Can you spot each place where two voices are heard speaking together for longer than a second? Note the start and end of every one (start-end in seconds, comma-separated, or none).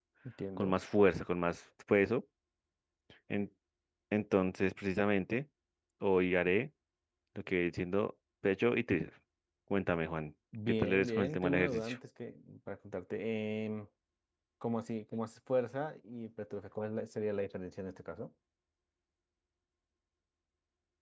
10.7-12.0